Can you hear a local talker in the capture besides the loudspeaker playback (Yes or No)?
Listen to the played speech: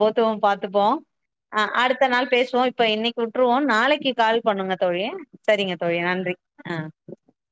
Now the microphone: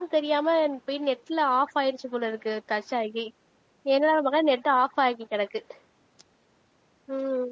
Yes